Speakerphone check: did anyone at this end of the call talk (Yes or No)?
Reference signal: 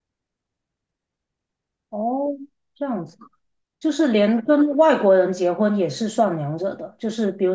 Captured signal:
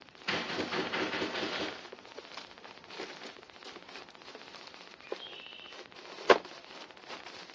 No